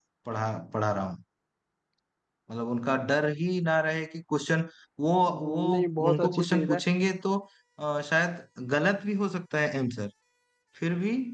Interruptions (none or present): present